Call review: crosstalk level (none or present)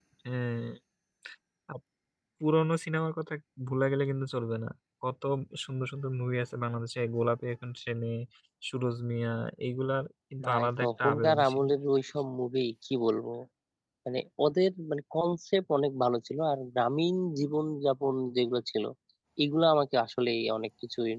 present